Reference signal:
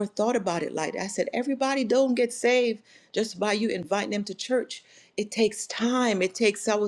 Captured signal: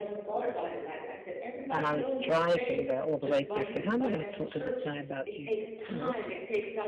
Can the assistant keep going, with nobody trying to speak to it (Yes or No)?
No